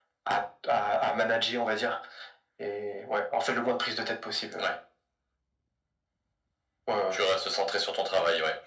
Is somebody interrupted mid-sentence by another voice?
No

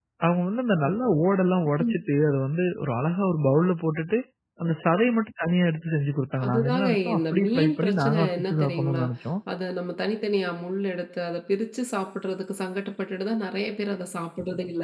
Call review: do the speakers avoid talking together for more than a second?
No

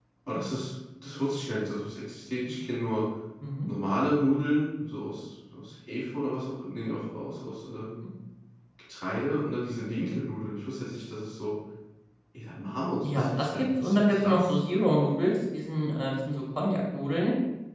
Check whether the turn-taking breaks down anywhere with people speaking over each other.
Yes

